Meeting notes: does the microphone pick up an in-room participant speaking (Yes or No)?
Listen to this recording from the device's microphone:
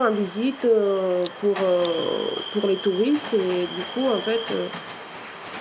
Yes